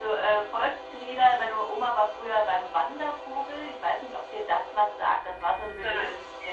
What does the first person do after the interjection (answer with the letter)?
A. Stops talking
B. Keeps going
B